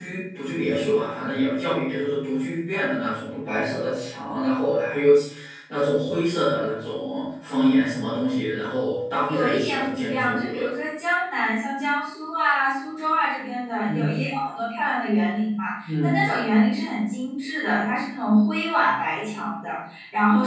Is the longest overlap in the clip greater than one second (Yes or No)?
Yes